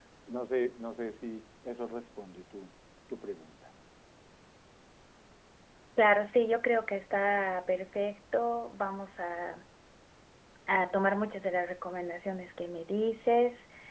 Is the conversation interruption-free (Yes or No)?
Yes